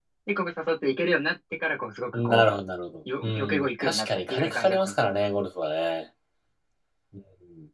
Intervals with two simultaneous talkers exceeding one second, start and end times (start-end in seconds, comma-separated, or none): 3.2-5.1